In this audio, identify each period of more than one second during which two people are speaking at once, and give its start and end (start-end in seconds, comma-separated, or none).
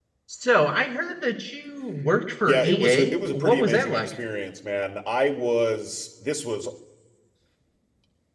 2.5-4.2